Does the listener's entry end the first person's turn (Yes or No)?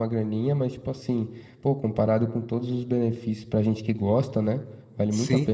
Yes